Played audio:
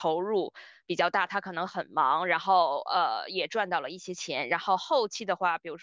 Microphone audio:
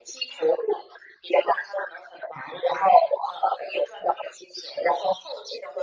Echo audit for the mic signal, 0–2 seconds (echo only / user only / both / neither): echo only